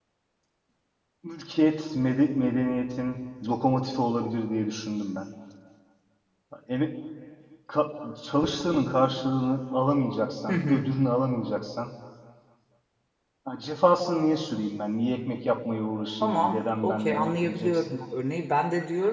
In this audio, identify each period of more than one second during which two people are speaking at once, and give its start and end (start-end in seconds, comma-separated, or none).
16.2-17.9